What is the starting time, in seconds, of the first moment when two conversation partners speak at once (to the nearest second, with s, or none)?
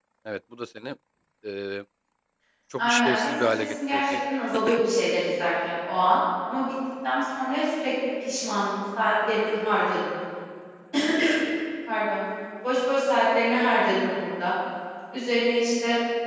3 s